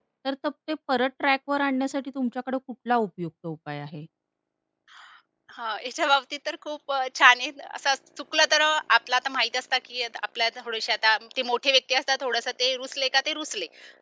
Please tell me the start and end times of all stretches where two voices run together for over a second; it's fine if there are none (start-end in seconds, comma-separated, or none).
none